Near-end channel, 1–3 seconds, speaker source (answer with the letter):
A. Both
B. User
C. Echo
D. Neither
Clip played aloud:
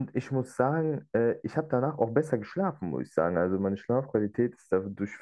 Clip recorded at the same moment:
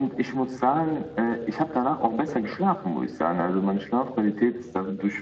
C